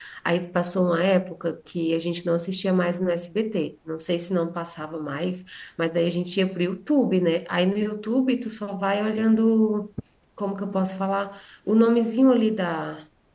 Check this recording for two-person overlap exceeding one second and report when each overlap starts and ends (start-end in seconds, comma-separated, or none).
none